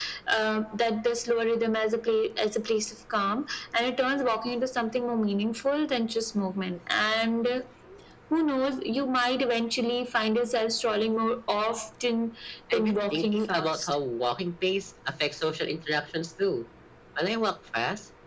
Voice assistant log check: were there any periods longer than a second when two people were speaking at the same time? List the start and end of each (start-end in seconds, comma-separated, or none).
12.7-13.9